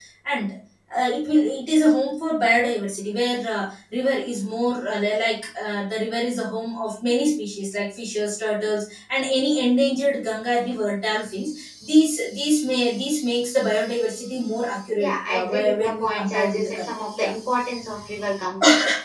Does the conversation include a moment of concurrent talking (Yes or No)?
Yes